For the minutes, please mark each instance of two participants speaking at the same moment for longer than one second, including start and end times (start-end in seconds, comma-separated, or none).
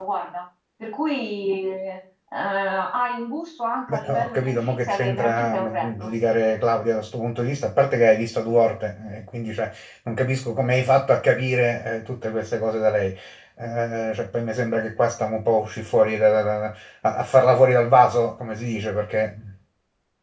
3.9-6.1